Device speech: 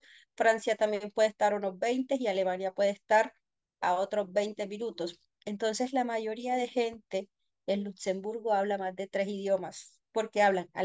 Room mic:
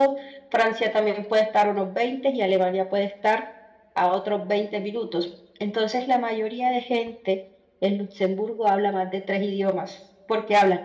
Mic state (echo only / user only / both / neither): echo only